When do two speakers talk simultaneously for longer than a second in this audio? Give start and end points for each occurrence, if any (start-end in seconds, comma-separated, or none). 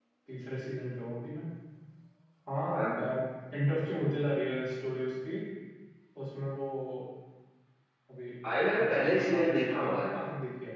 8.8-10.1